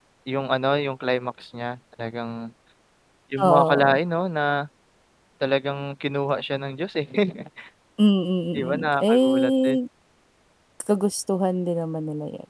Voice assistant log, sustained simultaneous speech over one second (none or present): present